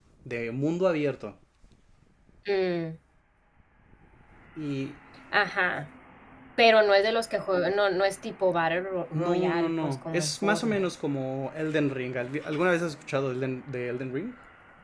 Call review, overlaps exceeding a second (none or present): present